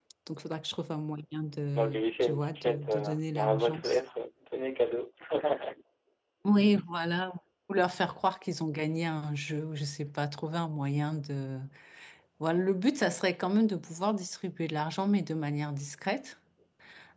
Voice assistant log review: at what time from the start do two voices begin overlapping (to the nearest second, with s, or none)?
2 s